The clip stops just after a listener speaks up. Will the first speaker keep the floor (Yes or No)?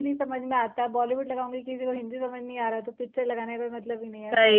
No